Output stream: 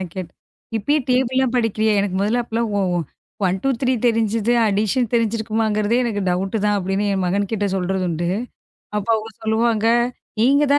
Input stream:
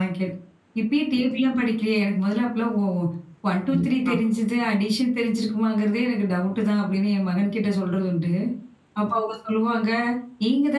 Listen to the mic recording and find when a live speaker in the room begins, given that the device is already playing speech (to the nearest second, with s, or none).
4 s